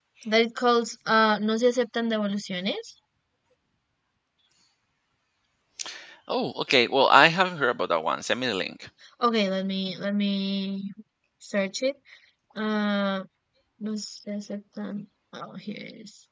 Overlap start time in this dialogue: none

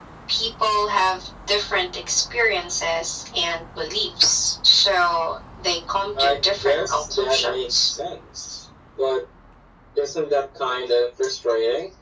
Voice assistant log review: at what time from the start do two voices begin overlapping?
6.2 s

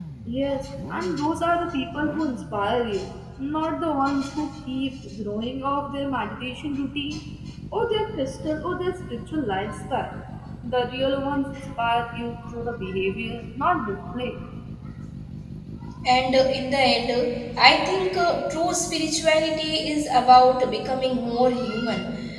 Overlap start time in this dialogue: none

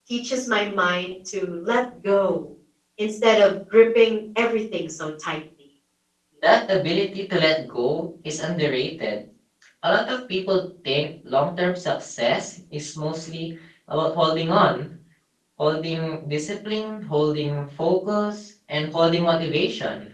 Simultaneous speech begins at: none

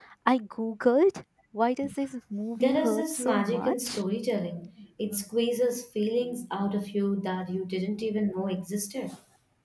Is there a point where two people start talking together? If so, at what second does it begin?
2.6 s

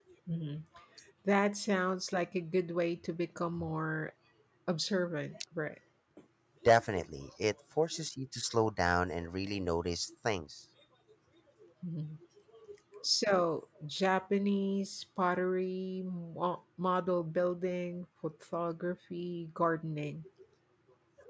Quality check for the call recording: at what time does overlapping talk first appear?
none

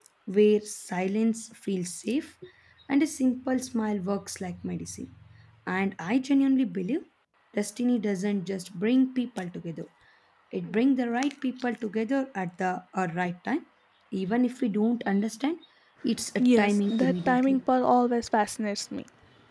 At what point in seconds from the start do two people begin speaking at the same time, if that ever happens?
16.4 s

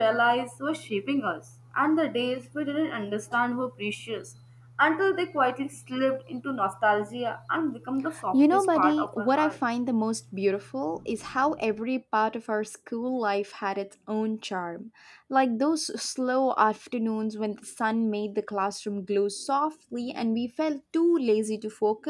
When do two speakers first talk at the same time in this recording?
8.3 s

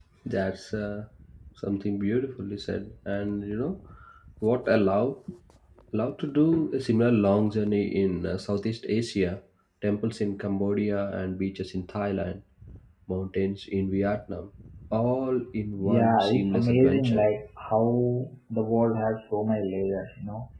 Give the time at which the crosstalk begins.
15.8 s

